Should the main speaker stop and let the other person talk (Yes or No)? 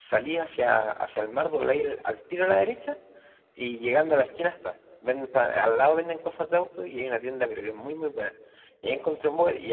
No